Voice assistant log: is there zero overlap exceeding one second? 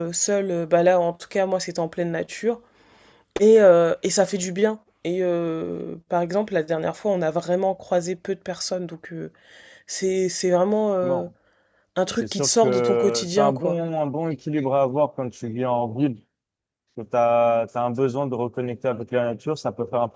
No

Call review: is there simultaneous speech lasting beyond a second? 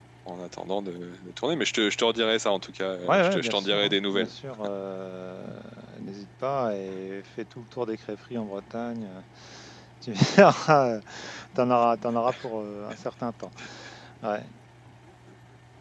Yes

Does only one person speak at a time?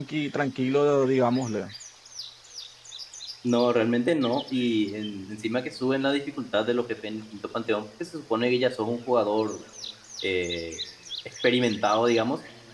Yes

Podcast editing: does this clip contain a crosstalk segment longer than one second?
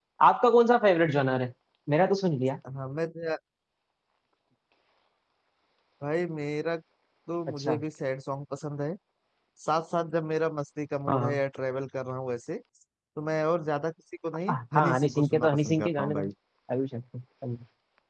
Yes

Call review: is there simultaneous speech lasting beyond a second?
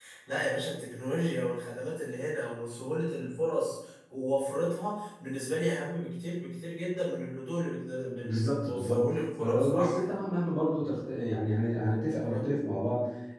Yes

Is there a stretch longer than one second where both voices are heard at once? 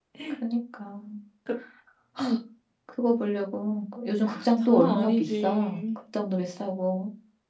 Yes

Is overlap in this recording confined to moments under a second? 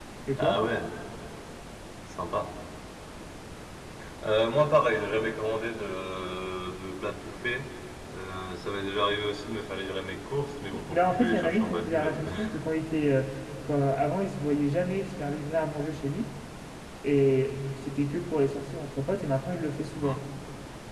No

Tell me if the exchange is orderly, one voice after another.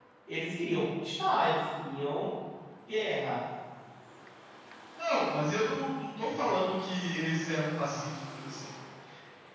Yes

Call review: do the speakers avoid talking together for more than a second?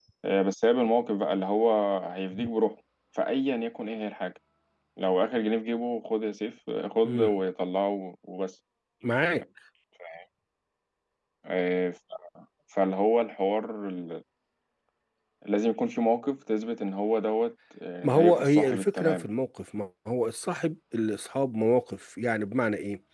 No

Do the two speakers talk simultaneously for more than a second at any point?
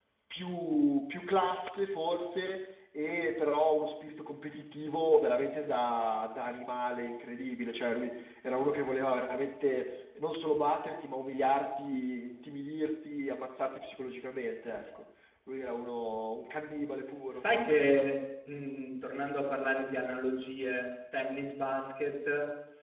No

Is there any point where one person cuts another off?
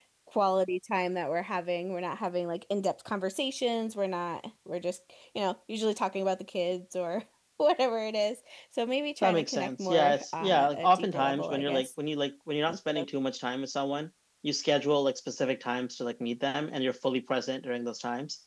Yes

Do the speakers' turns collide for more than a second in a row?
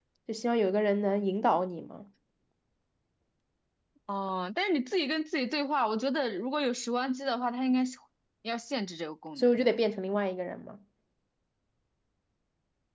No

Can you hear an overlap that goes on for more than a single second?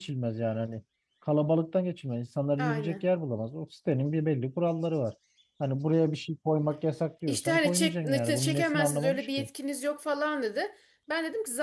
Yes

